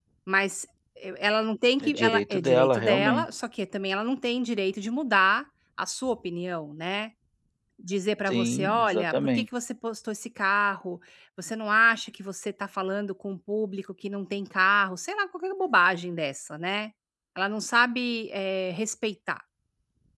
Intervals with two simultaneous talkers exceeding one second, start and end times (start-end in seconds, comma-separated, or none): 1.8-3.3, 8.3-9.5